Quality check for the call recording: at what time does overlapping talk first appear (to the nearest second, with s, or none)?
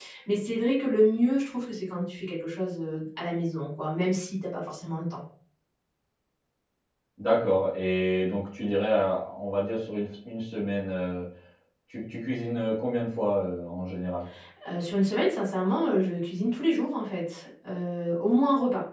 none